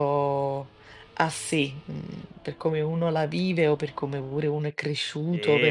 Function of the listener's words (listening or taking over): taking over